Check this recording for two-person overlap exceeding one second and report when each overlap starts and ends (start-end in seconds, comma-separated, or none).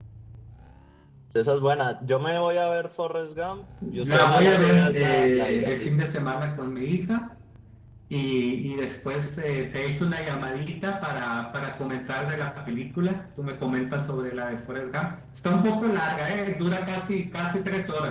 4.0-5.9